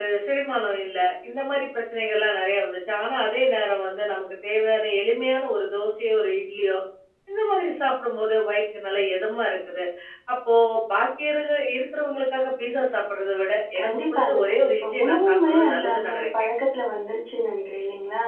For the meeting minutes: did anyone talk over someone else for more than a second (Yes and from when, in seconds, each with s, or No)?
Yes, from 13.8 s